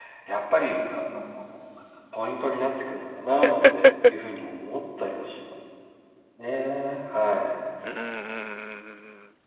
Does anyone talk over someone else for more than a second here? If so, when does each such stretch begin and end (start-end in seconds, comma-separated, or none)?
none